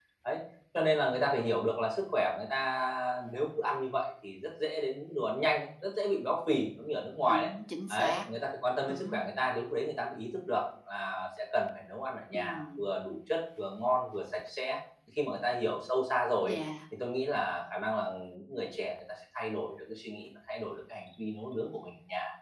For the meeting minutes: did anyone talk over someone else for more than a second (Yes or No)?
No